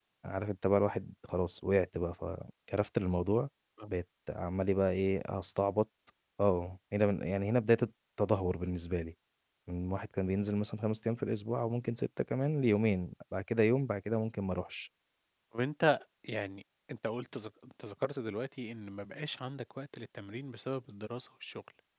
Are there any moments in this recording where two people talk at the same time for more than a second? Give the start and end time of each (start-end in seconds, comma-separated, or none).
none